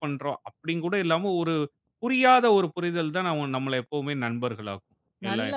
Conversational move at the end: taking over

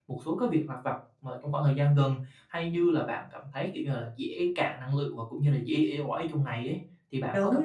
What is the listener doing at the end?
taking over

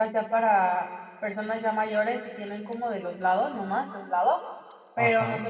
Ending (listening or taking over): listening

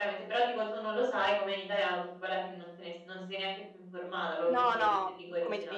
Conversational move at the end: taking over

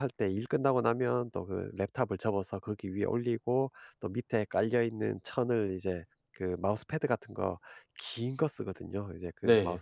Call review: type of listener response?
listening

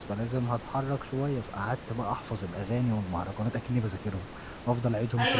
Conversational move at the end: taking over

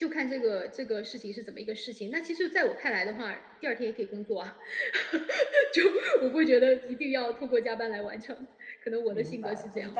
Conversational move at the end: taking over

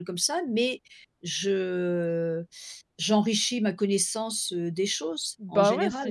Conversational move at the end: taking over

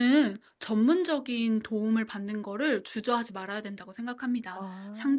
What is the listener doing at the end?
listening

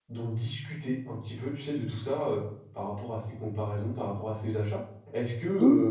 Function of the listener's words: listening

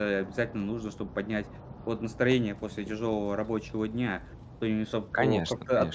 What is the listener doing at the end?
listening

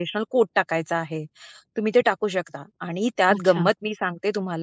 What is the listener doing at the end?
listening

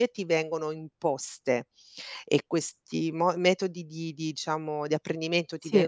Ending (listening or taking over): listening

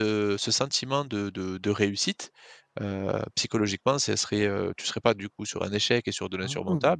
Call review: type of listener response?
listening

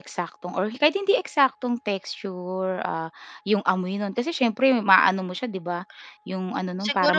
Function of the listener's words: taking over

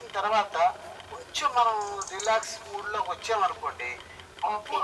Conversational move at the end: listening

